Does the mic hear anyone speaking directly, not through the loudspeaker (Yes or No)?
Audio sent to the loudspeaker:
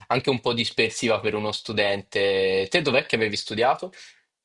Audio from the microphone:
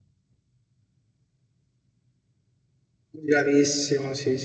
Yes